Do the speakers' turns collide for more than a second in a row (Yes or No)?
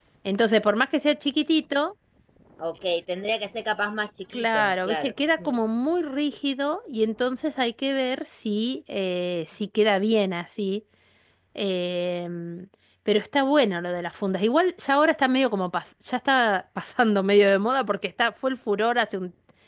Yes